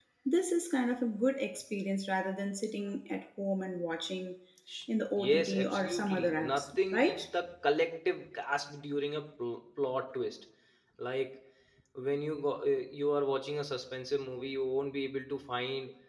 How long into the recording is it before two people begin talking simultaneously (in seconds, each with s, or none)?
5.3 s